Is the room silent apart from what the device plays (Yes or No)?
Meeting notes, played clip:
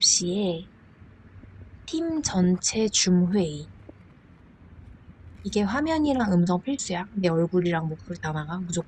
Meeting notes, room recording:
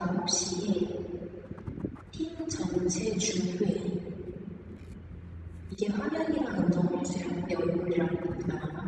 Yes